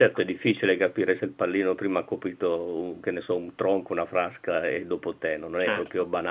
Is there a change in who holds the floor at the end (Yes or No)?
Yes